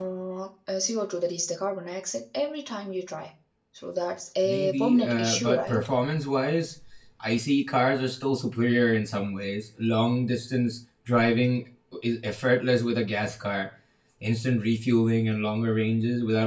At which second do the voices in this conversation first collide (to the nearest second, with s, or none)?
4 s